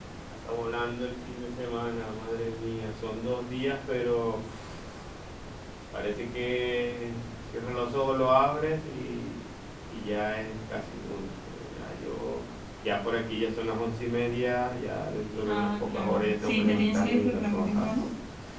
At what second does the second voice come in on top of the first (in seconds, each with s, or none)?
15.4 s